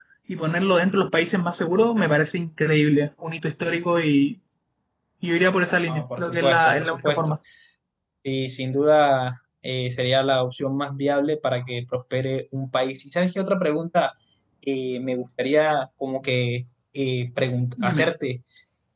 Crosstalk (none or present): present